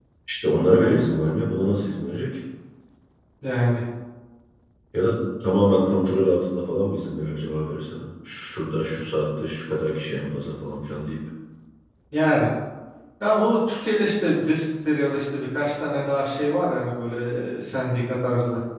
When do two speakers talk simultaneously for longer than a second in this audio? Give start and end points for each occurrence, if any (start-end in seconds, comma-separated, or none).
none